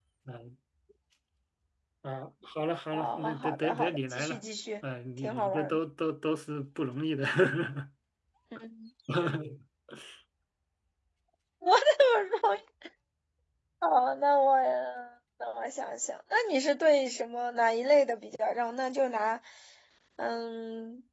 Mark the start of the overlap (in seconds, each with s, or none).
2.9 s